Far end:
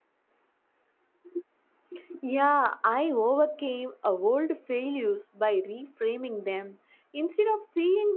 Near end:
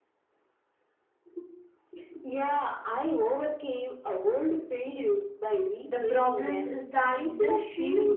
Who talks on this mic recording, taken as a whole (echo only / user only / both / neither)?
both